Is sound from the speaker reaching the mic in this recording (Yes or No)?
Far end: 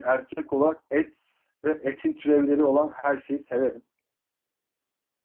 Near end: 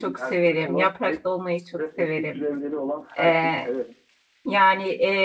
Yes